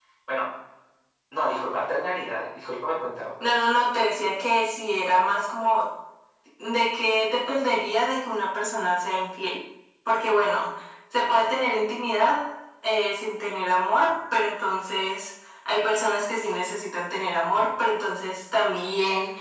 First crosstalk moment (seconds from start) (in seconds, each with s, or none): none